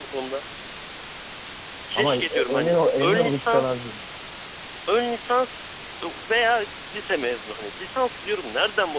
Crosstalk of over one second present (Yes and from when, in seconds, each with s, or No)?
Yes, from 2.0 s